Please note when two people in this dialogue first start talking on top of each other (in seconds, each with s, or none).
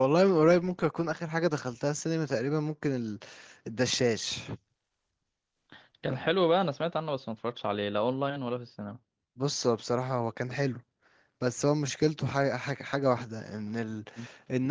none